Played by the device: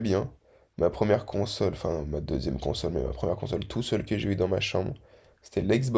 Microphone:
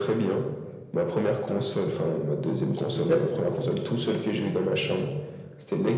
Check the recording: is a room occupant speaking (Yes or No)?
Yes